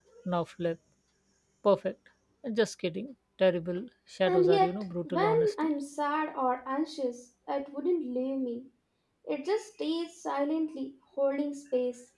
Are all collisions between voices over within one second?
No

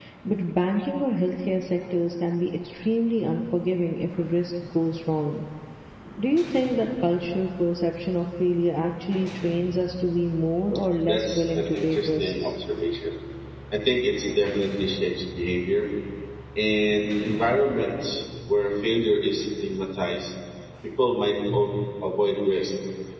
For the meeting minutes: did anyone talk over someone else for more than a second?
Yes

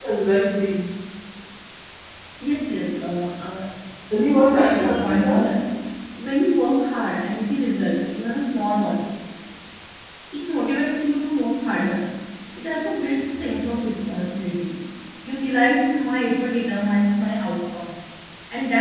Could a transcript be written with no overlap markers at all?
No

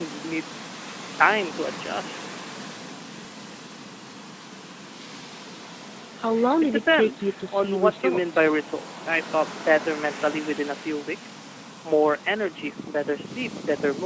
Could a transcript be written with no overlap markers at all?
No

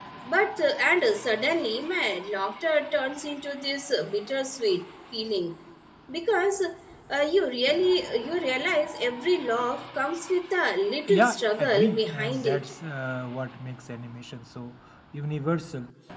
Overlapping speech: Yes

